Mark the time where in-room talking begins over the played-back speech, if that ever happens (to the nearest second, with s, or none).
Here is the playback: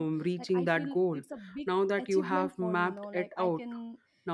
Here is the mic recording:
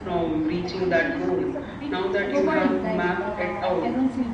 2 s